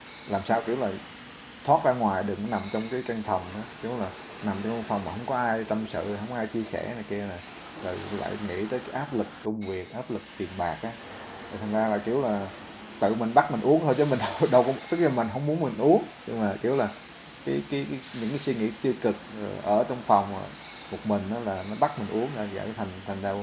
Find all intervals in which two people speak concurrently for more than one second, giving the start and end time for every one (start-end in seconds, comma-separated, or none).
none